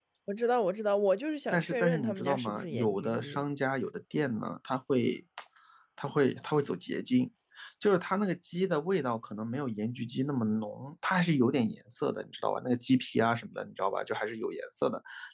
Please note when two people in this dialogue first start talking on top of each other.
1.5 s

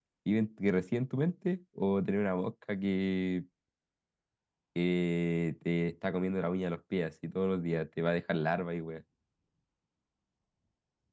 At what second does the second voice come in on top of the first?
none

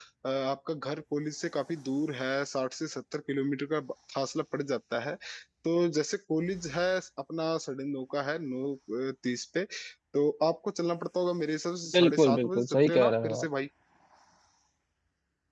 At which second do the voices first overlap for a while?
11.9 s

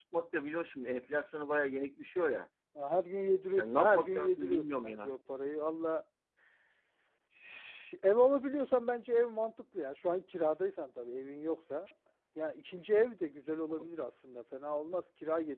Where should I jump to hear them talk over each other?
3.6 s

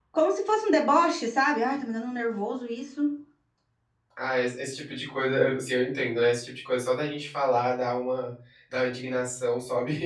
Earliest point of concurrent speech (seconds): none

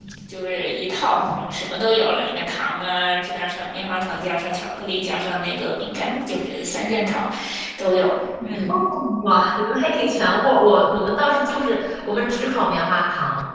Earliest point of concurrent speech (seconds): none

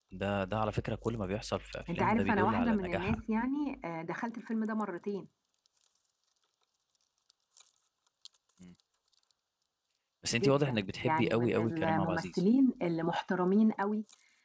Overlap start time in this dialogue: 1.9 s

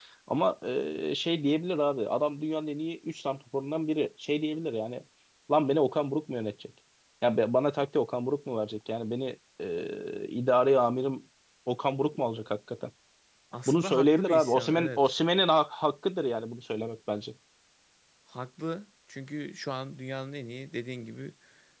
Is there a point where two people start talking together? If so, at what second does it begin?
13.7 s

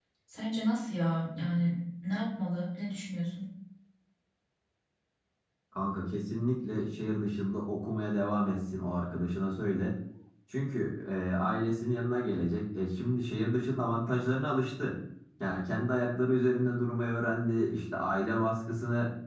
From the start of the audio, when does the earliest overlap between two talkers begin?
none

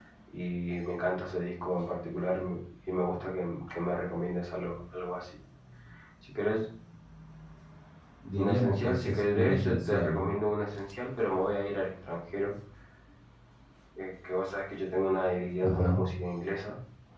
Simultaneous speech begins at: 8.4 s

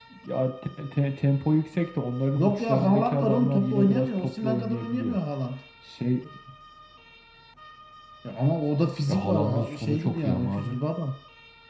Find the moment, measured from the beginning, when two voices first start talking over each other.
2.3 s

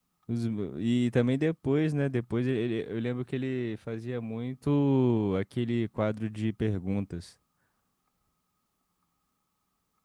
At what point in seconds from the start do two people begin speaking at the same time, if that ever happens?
none

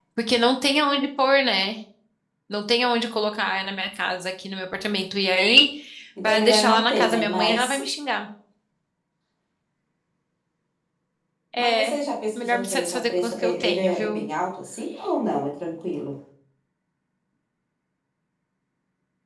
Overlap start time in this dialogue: 6.2 s

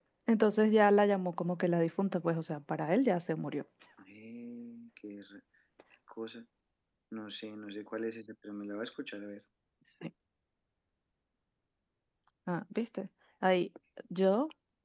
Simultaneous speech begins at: none

